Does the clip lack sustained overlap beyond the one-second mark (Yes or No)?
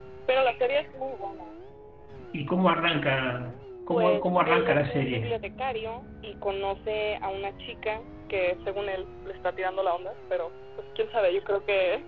No